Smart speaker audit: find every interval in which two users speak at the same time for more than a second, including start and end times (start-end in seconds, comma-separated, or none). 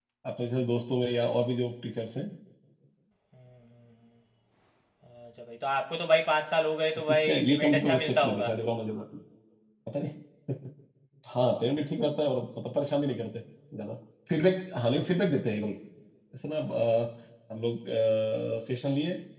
7.1-8.5